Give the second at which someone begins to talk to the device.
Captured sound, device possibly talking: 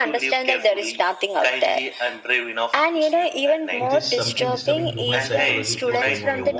3.9 s

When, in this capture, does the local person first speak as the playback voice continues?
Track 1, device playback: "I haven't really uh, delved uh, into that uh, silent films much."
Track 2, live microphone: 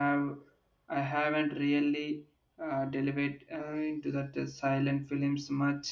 none

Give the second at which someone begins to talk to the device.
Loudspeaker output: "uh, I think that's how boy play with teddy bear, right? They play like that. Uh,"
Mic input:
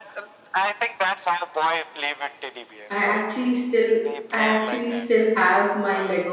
2.9 s

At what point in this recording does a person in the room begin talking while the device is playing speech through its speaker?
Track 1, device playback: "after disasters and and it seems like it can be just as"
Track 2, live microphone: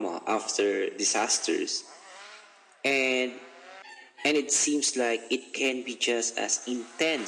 none

